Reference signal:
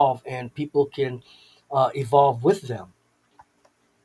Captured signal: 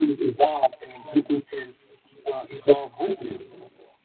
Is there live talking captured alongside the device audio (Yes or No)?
No